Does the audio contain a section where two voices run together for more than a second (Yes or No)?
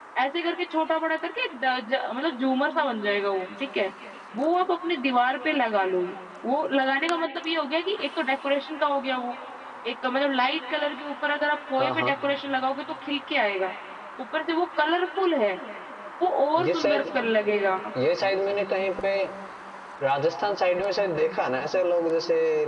No